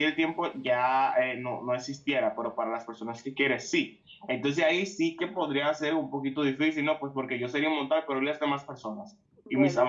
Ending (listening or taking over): listening